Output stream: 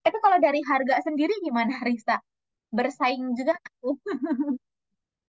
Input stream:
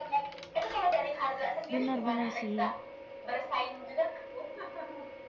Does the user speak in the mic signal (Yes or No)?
Yes